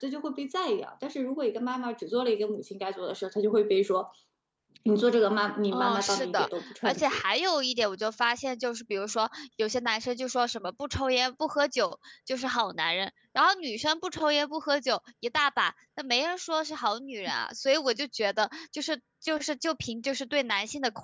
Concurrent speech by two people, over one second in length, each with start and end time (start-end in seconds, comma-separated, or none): 5.7-7.2